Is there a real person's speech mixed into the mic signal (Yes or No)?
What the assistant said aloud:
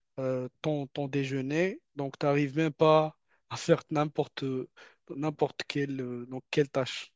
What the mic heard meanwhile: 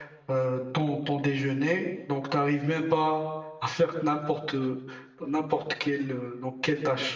No